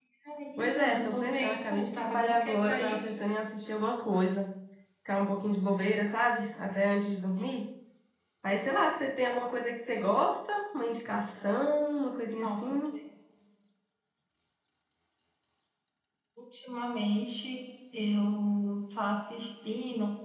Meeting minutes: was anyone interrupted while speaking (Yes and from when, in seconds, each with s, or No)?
Yes, from 0.6 s